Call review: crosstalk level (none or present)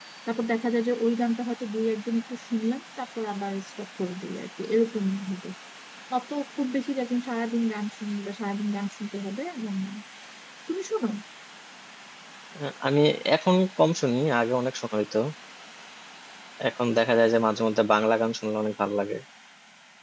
none